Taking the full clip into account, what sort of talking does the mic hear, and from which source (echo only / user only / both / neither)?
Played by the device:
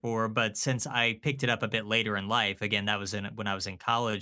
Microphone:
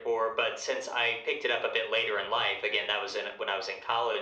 echo only